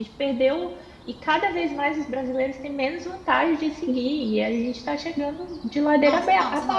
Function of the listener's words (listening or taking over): taking over